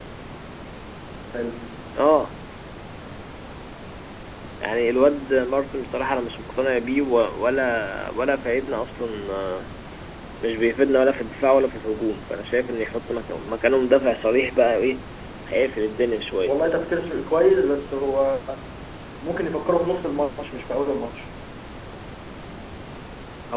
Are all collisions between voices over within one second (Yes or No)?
Yes